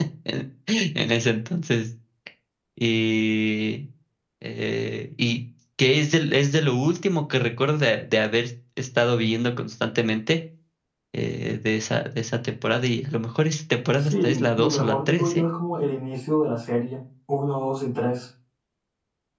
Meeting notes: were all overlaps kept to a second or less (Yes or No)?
No